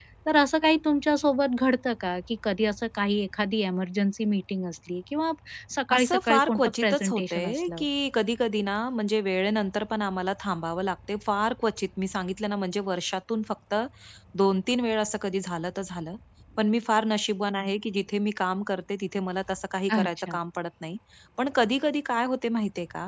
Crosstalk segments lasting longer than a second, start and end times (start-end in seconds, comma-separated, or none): 5.9-7.8